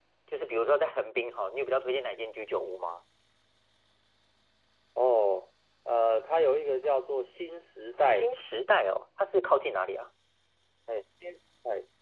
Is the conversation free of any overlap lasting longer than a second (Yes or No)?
Yes